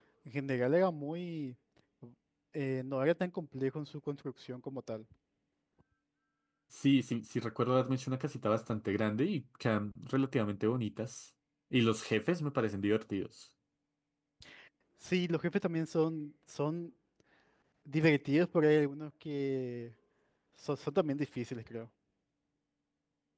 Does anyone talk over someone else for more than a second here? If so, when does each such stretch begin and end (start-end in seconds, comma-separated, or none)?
none